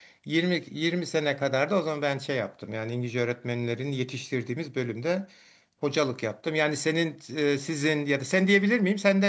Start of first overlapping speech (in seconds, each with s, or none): none